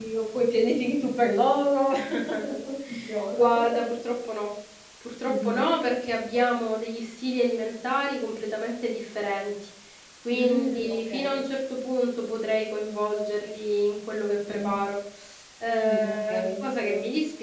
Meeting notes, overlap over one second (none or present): present